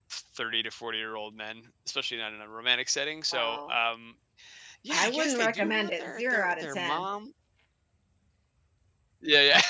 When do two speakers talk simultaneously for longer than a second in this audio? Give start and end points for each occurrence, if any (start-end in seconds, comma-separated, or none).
4.9-7.1